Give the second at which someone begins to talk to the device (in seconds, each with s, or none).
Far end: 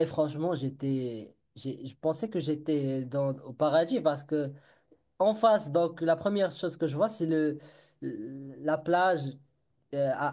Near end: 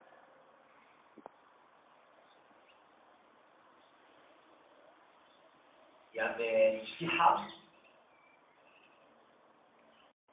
6.1 s